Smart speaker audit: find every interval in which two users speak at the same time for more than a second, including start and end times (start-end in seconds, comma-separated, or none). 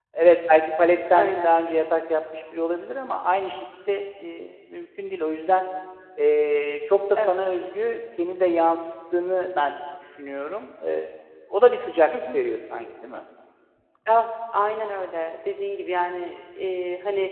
none